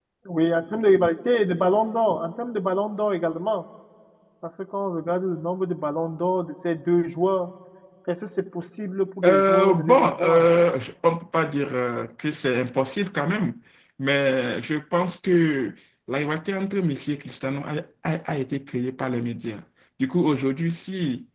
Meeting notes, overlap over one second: present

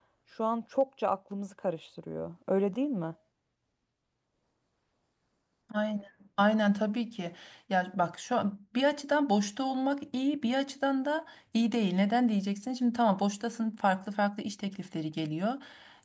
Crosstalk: none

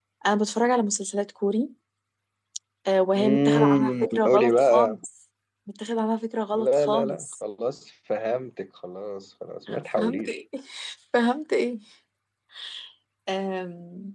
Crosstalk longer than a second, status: present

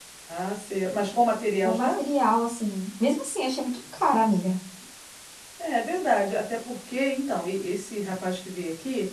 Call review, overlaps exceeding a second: none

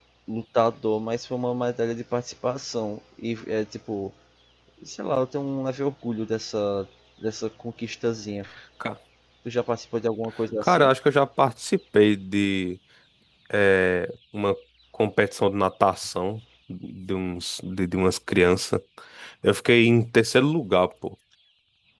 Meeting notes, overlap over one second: none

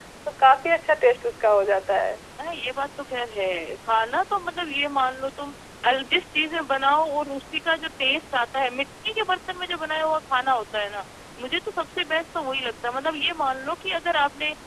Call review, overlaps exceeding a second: none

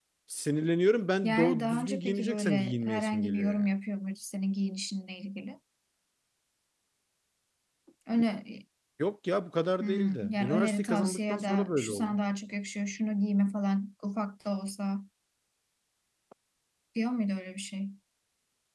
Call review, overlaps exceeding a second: present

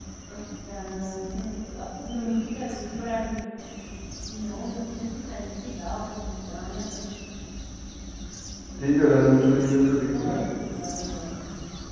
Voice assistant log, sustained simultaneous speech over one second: none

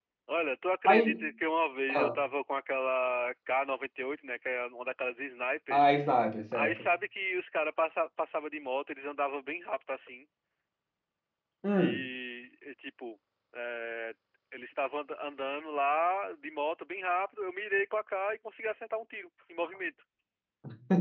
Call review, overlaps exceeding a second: none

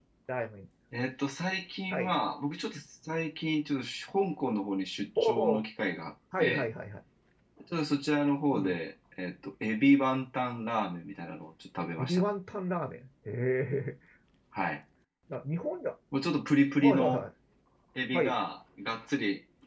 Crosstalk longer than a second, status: none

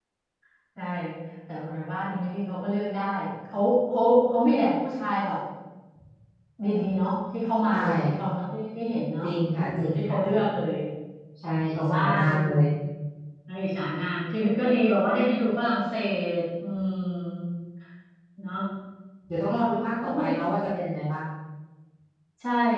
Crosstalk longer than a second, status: present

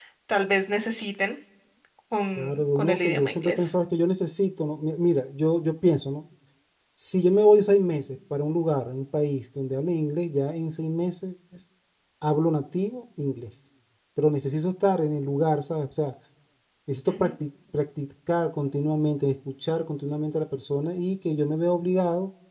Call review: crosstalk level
present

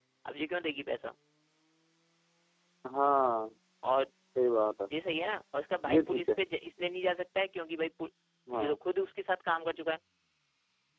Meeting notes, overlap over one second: none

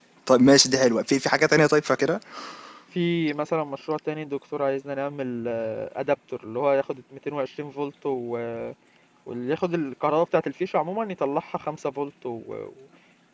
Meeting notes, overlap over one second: none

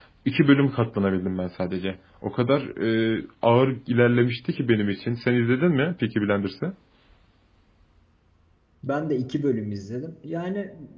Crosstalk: none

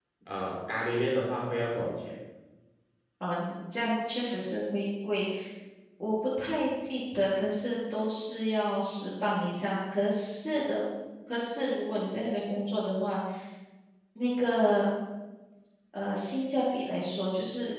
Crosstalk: none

